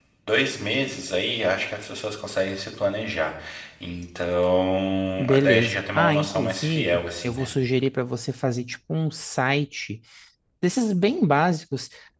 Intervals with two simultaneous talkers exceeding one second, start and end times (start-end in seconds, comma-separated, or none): 5.2-7.5